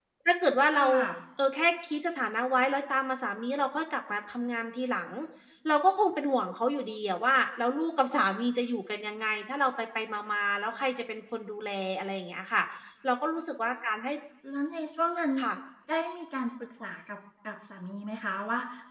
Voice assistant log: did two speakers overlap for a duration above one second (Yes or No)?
No